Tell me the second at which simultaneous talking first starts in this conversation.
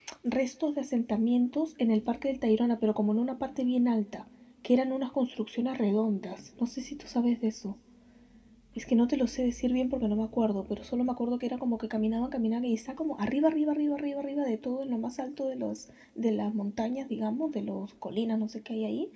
none

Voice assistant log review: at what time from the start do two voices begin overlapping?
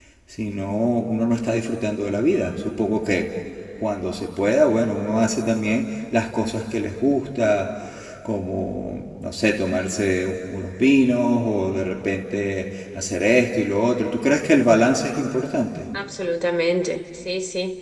none

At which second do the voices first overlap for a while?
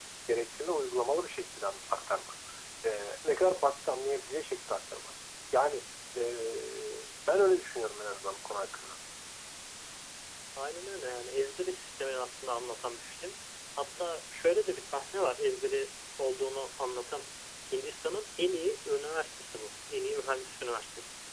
none

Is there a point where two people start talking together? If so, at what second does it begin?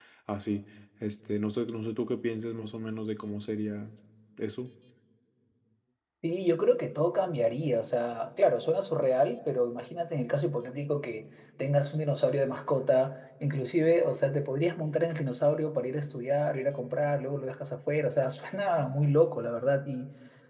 none

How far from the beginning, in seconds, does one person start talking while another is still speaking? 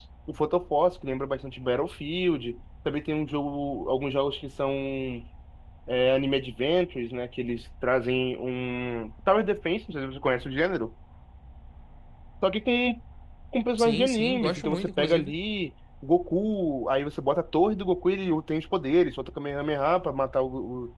14 s

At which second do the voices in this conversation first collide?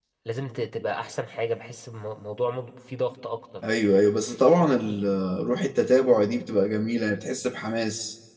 none

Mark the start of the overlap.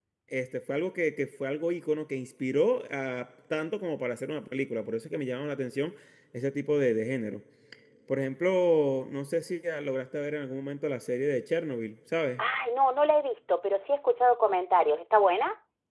none

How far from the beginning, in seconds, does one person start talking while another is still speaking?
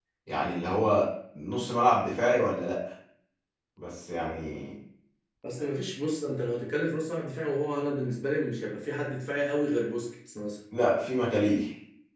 none

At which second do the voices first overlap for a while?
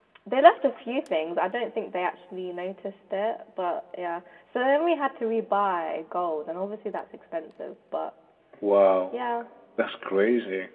none

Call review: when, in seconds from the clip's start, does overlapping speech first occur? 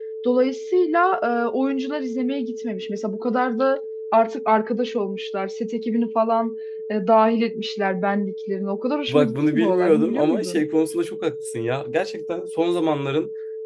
9 s

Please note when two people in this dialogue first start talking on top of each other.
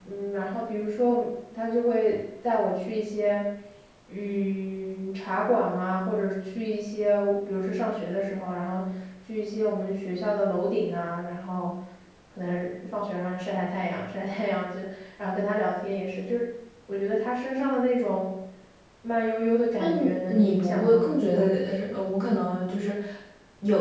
20 s

